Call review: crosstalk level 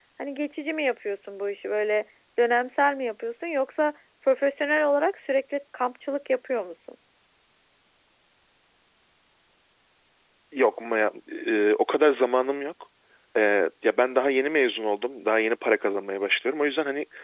none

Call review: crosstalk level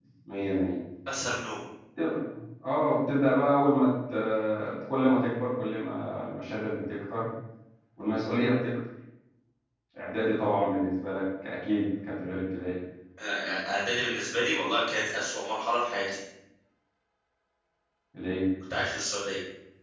none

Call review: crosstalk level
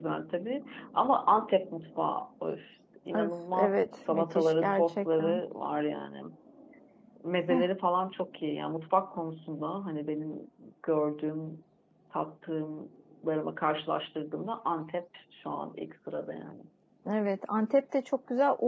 present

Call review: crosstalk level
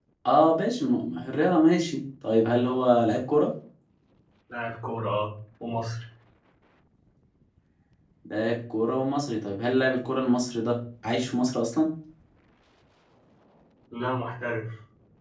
none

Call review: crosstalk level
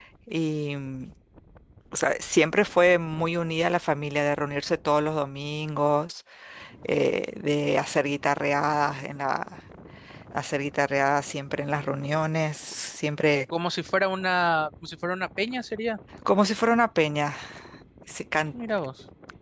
none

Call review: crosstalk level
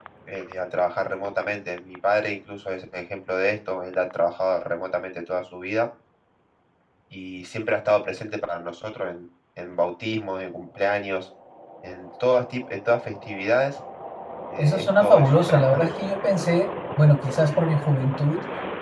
present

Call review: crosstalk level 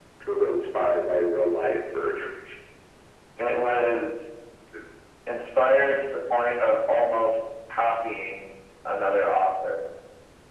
none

